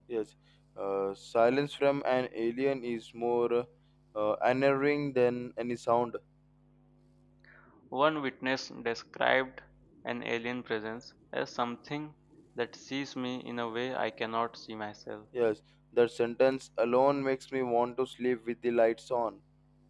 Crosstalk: none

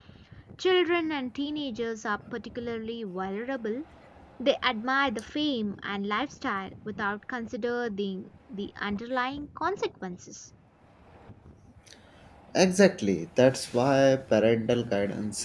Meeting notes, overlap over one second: none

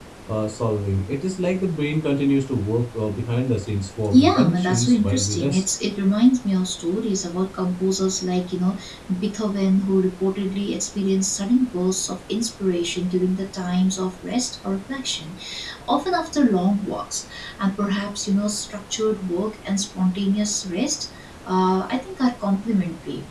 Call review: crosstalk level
present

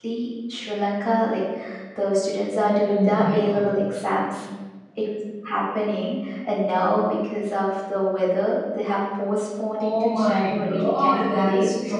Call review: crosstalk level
present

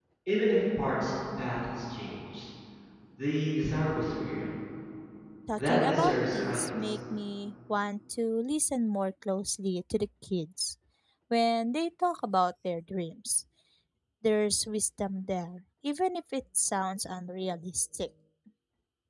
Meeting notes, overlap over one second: present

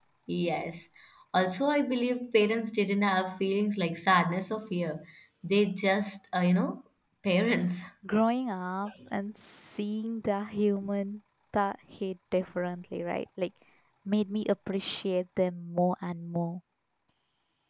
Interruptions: none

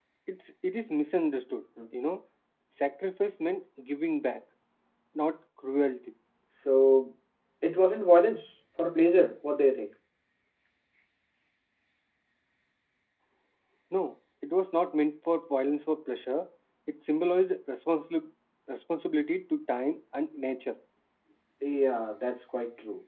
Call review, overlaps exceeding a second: none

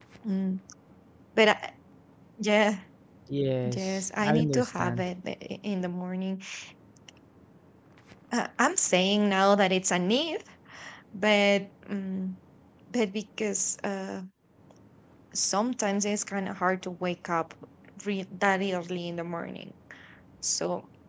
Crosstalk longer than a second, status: present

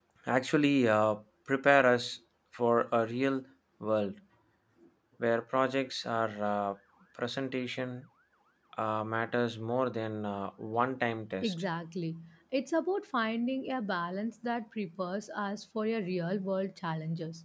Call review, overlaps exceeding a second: none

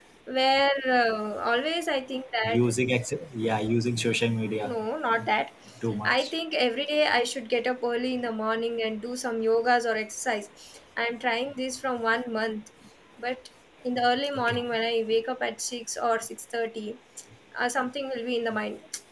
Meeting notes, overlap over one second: none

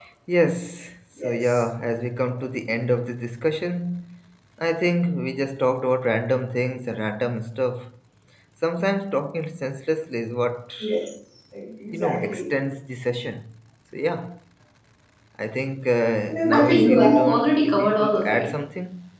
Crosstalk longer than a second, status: present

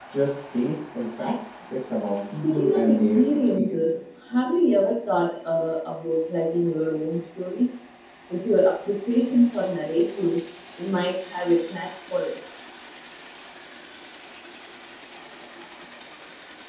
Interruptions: present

